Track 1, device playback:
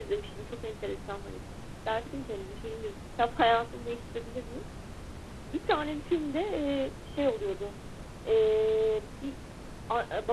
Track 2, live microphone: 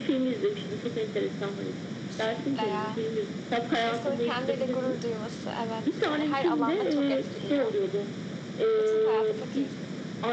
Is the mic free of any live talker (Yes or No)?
No